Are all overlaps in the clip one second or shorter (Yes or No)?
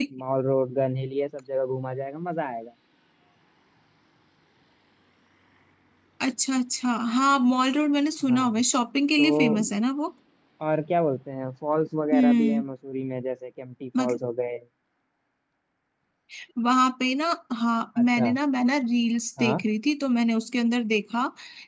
Yes